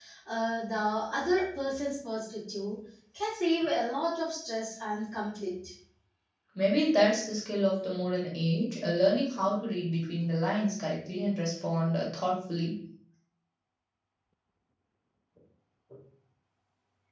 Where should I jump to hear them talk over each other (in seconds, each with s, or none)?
none